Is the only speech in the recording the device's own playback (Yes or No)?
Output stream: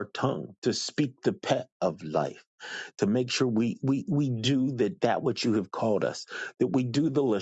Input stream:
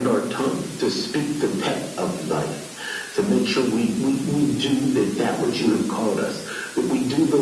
Yes